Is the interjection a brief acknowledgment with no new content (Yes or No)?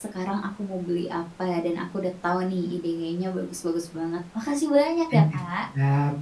No